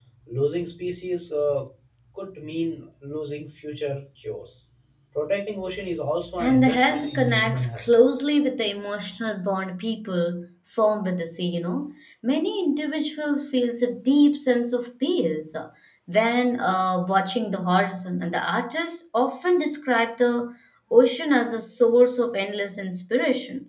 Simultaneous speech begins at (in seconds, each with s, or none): 6.4 s